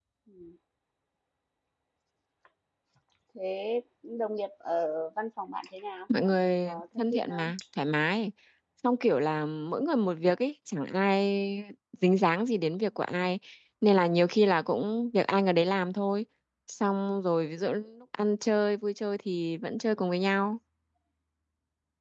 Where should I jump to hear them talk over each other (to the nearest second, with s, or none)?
6 s